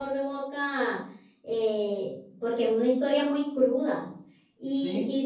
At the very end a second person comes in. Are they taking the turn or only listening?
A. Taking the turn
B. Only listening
B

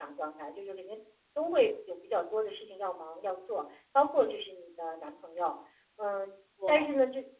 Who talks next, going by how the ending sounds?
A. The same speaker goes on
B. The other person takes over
A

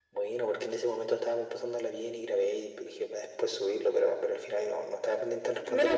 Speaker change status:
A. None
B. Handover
B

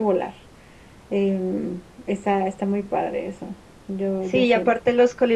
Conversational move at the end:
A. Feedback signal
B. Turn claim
B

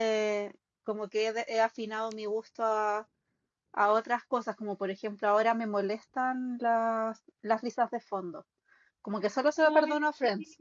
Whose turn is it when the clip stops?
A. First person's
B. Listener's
A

